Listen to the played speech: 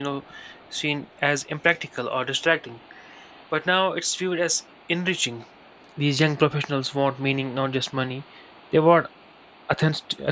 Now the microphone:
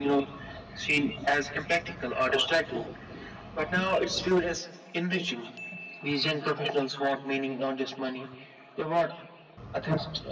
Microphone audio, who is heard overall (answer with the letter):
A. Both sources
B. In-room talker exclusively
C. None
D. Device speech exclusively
D